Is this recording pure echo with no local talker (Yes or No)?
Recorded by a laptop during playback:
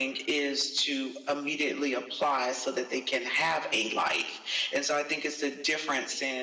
Yes